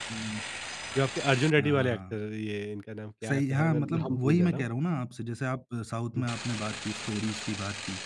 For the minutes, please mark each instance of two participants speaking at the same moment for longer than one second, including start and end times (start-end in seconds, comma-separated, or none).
3.3-4.7